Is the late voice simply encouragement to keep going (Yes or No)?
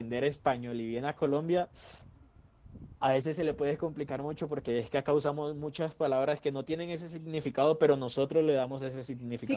No